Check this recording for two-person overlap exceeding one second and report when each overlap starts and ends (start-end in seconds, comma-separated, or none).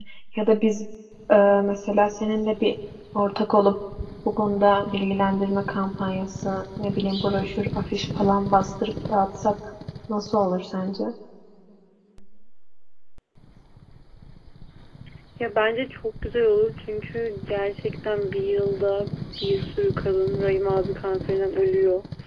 none